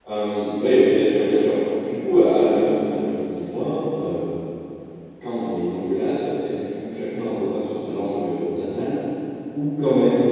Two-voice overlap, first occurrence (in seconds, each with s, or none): none